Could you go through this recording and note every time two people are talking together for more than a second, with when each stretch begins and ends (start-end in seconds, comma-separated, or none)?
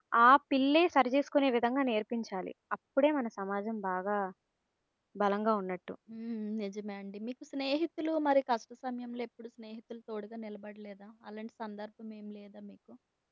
none